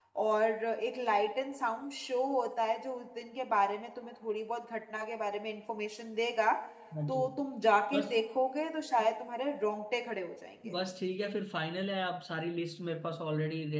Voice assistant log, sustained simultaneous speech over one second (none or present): none